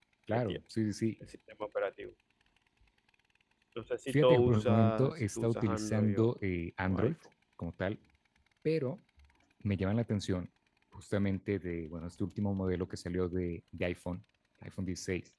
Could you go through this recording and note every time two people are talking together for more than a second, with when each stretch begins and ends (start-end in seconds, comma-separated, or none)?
4.1-6.3